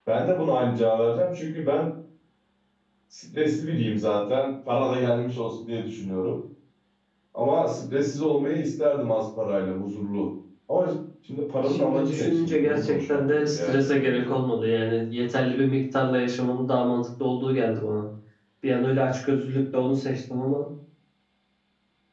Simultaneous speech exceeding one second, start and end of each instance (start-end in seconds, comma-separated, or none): 11.7-14.3